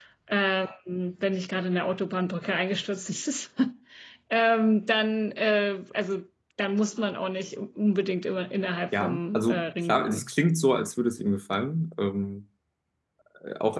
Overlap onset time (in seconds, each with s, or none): 8.9 s